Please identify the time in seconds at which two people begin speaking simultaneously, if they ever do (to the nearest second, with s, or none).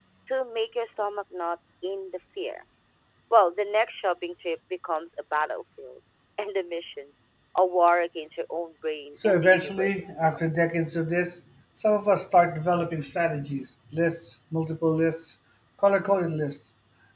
9 s